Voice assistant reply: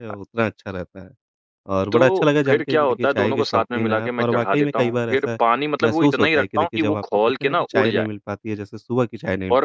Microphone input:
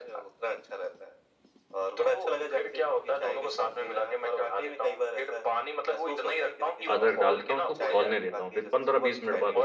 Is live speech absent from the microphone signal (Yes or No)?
No